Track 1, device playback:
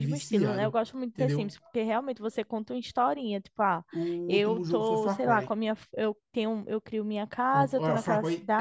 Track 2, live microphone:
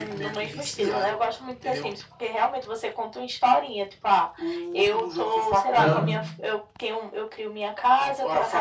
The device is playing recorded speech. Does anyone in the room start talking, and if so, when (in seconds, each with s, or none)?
5.7 s